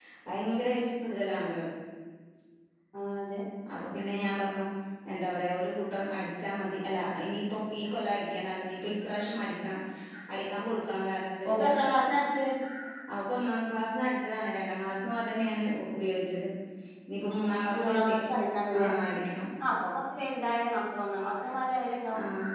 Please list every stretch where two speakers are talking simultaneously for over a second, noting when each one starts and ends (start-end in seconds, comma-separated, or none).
none